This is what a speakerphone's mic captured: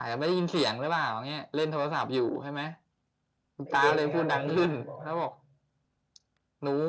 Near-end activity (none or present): present